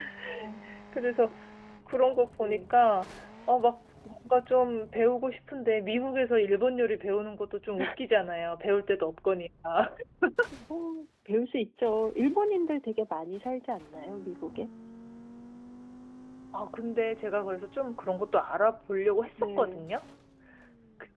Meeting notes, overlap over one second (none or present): none